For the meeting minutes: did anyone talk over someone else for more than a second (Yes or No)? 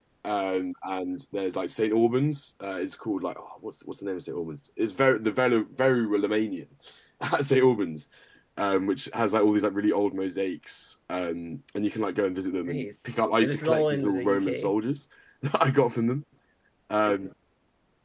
Yes